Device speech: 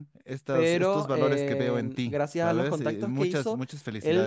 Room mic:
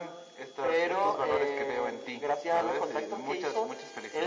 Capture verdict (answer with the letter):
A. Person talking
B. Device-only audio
B